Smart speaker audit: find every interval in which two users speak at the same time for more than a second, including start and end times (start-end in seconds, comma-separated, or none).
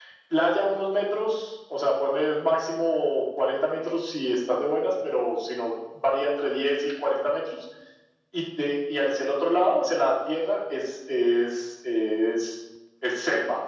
none